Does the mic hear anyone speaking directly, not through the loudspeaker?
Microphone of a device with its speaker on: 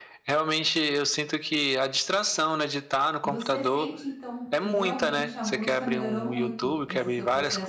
Yes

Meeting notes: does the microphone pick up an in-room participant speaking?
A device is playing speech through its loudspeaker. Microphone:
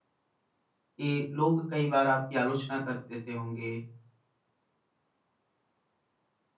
Yes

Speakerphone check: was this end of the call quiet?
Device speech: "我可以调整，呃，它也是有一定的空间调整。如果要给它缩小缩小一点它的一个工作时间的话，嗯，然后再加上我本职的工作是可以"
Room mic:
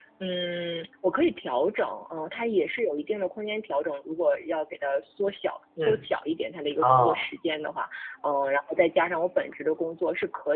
No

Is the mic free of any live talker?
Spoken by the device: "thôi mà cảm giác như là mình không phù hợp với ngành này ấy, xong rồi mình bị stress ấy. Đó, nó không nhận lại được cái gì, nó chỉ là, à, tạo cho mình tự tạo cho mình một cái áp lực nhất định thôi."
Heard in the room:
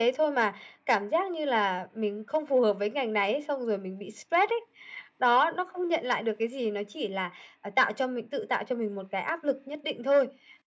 Yes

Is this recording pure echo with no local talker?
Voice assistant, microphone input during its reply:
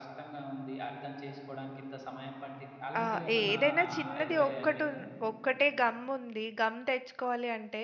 No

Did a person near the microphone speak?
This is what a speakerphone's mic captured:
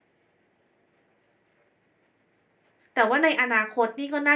Yes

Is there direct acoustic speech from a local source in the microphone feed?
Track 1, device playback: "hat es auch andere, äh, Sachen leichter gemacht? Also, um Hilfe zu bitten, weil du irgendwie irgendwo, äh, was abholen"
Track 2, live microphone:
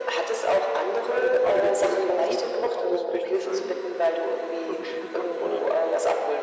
Yes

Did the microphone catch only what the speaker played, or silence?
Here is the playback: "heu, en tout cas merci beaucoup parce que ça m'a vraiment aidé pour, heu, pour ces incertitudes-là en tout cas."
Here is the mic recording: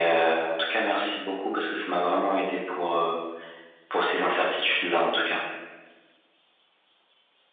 Yes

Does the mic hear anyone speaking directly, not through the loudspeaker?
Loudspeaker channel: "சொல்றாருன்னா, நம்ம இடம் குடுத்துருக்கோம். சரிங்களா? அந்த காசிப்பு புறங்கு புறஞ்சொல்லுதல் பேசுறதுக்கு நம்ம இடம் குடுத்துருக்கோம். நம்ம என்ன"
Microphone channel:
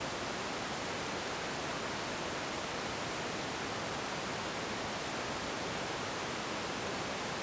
No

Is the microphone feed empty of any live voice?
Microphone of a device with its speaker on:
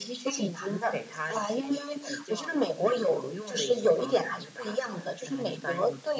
Yes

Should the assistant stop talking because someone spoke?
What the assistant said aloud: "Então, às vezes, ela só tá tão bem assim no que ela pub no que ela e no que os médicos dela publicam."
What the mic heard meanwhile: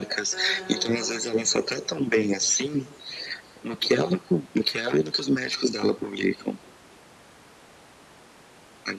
Yes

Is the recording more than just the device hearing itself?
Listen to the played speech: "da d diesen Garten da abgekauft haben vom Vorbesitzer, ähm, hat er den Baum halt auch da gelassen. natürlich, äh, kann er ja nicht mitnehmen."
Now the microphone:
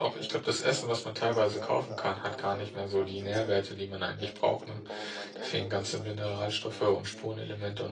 Yes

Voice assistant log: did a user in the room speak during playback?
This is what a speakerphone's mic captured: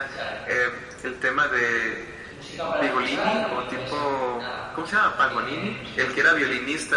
Yes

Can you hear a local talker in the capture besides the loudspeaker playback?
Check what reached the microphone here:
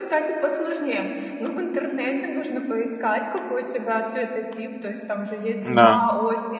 Yes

